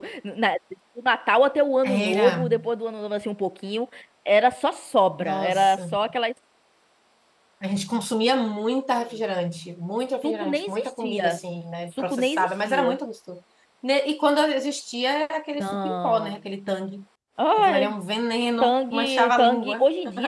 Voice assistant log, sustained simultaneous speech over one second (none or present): present